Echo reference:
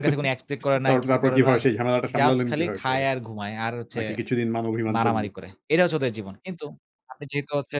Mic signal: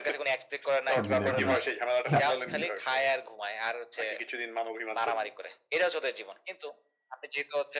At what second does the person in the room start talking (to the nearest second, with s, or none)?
1 s